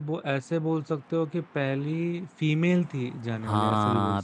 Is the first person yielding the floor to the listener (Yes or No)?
Yes